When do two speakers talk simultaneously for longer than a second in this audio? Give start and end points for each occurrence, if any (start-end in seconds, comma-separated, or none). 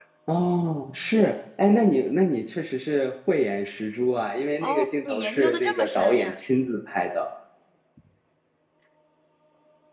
4.6-6.3